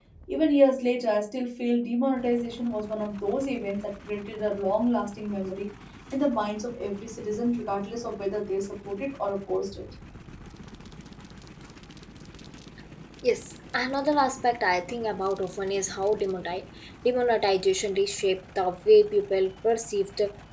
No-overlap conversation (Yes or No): Yes